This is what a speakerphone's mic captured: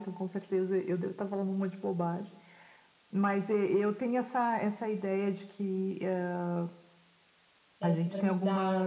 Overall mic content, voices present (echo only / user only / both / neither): both